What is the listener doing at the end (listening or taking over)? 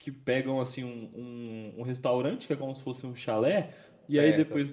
listening